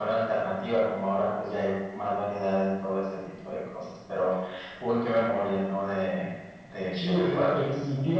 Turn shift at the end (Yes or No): Yes